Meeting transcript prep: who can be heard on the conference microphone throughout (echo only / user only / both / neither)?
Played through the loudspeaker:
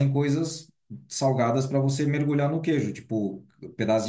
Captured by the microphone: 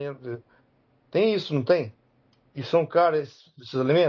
user only